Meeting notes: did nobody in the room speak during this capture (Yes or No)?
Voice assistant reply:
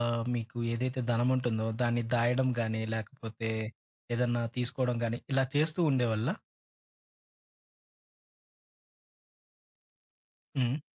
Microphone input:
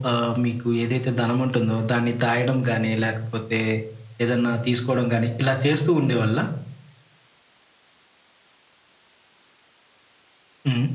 Yes